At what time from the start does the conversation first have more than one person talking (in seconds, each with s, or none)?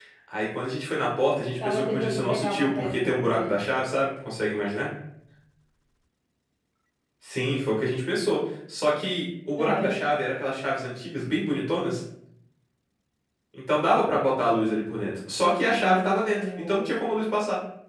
1.6 s